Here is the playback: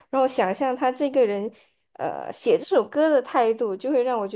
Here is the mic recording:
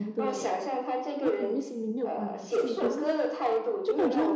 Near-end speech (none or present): present